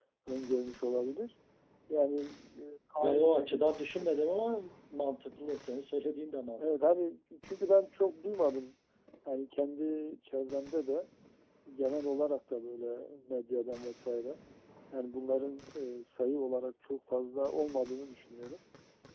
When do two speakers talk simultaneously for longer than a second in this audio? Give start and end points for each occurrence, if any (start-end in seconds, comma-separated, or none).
none